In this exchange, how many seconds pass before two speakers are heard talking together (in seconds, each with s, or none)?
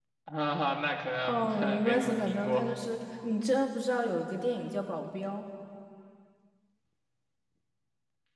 1.2 s